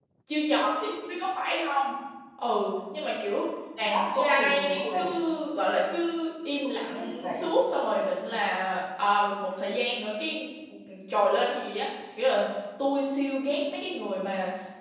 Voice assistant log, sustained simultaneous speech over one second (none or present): present